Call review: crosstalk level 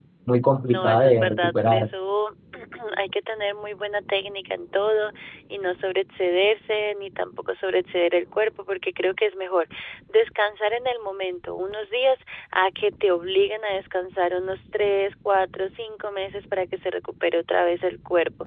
present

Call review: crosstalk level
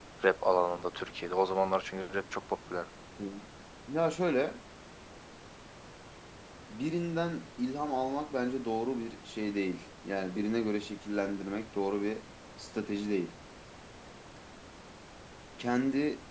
none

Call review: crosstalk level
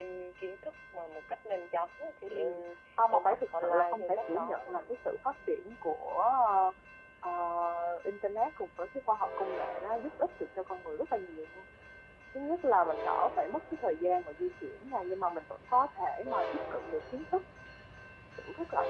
present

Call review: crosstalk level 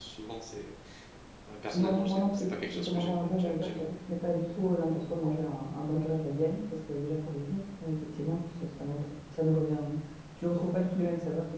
present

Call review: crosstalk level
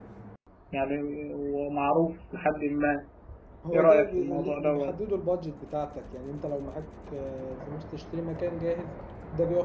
present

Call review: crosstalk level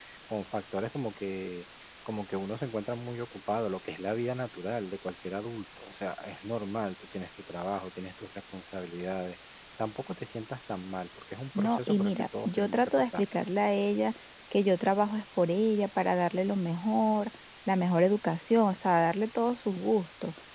present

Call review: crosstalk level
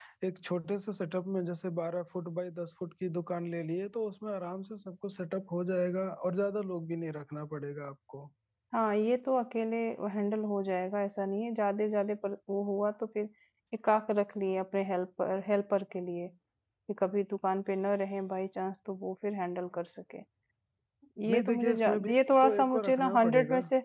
present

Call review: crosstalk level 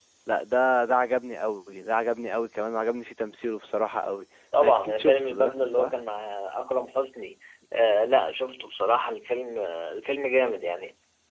present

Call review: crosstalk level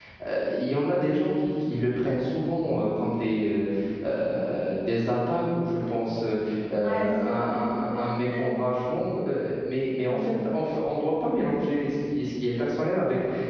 present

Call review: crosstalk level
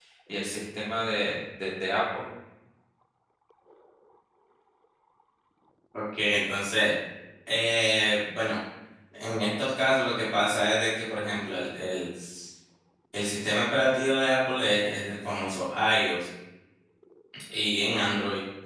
none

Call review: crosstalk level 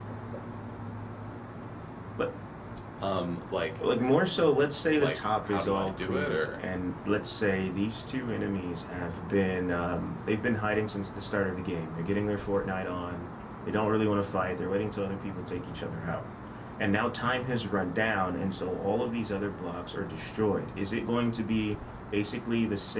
present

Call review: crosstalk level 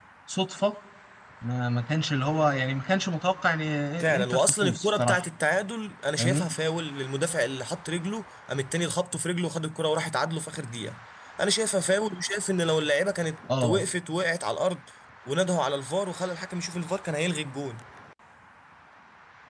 present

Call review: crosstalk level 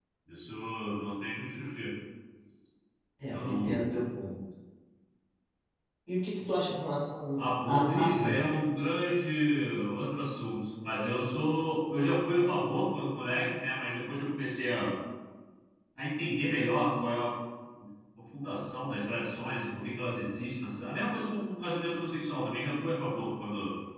present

